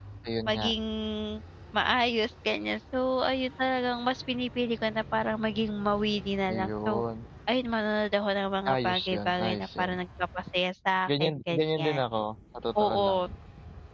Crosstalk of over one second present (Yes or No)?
Yes